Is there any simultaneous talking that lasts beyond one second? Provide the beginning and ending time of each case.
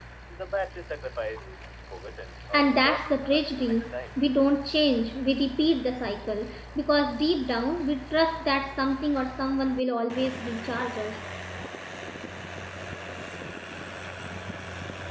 2.5-4.2

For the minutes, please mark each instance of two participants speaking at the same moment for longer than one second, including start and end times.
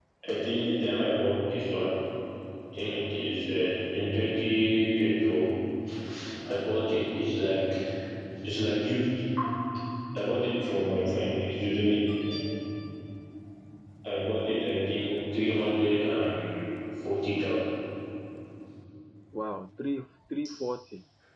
none

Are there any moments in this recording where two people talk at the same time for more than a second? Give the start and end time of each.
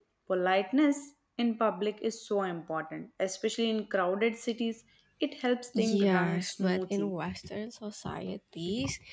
5.8-7.2

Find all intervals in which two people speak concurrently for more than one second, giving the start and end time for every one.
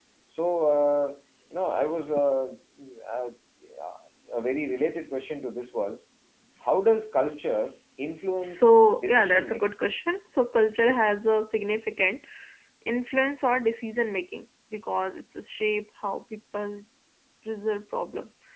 8.4-9.6

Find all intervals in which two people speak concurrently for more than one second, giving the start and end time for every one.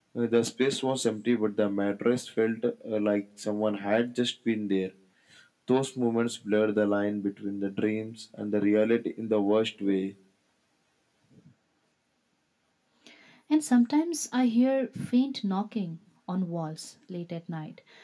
none

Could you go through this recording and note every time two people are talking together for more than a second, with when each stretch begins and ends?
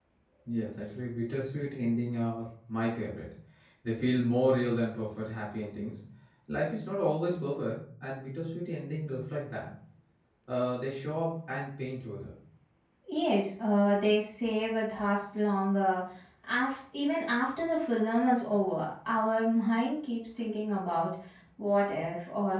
none

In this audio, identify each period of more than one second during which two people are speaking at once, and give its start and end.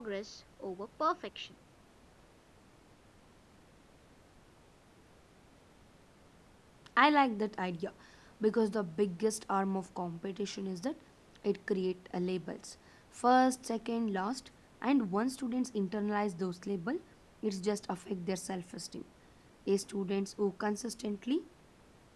none

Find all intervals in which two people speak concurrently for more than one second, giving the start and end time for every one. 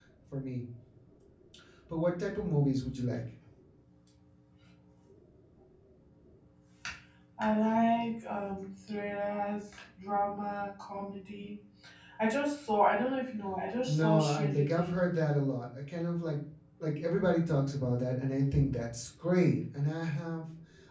13.8-15.1

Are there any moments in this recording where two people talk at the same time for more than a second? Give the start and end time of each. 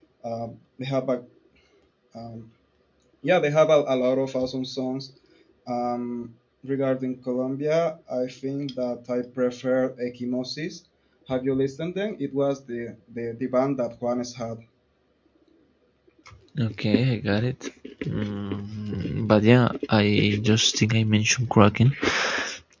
none

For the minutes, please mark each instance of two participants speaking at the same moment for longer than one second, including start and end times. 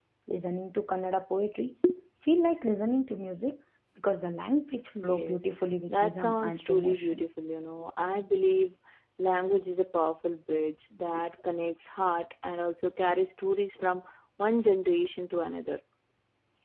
5.9-7.2

